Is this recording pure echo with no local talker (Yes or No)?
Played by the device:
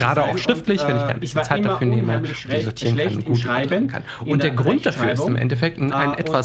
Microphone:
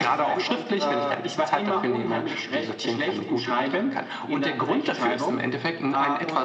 Yes